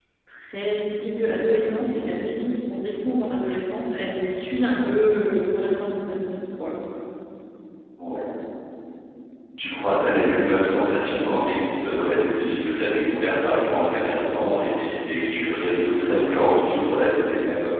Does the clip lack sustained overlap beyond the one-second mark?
Yes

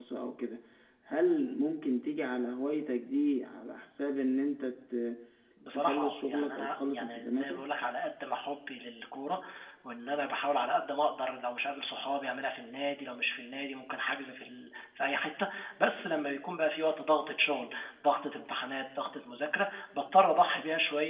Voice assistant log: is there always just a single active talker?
No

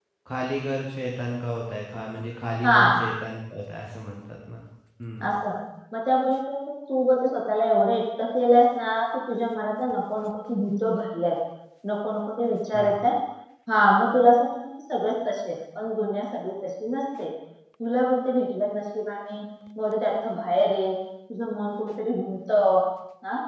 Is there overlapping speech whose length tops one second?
No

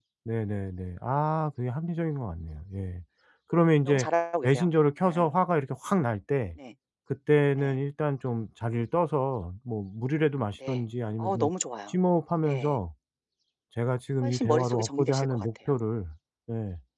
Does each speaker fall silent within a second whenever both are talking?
No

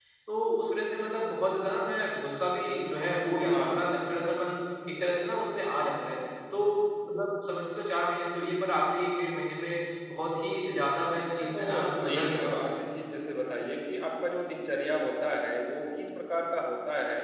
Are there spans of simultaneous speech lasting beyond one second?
Yes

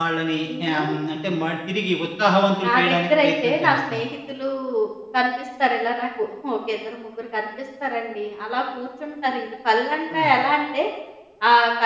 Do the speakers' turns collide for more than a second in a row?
Yes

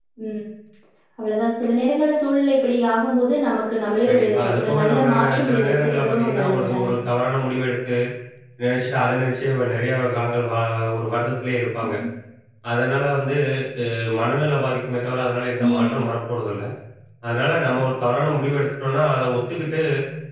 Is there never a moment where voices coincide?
No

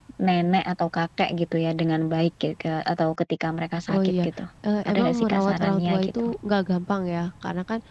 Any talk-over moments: Yes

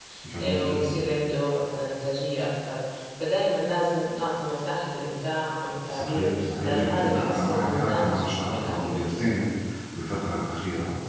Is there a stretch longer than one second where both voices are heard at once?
Yes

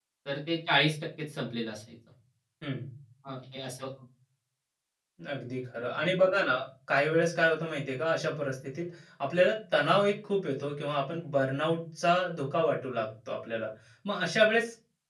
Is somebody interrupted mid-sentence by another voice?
No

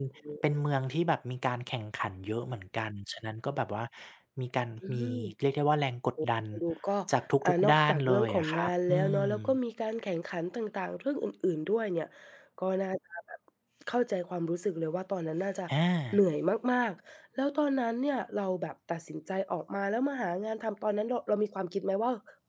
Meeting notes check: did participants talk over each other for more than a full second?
Yes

